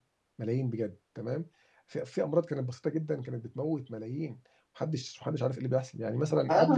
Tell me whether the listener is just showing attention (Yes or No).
No